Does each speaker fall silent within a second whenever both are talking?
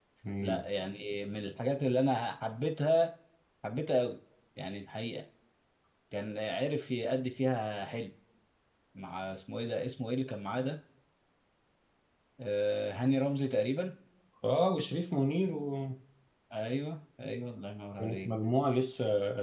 Yes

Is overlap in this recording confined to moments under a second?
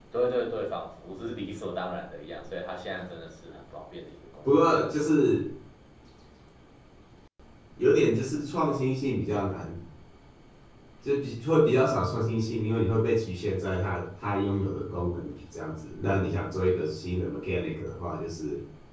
Yes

